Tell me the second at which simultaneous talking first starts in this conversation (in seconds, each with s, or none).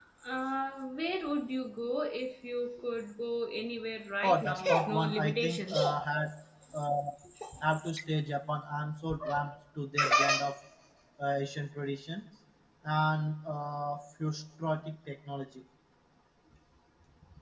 4.2 s